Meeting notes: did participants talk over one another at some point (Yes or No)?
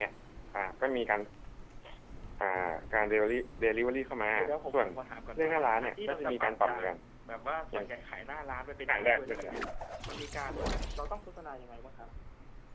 Yes